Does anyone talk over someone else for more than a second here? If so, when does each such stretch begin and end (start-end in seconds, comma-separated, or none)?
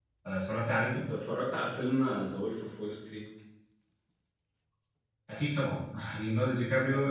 none